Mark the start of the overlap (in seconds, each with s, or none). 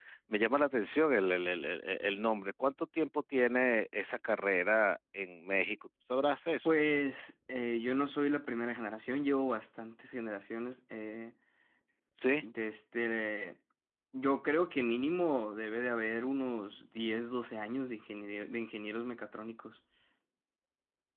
none